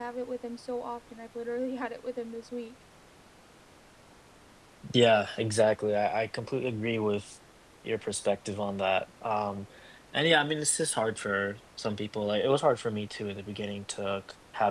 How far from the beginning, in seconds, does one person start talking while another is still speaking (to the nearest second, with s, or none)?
none